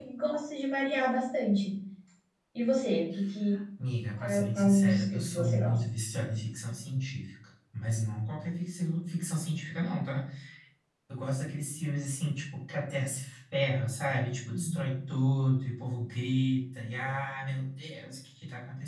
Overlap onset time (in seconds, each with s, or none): 4.2 s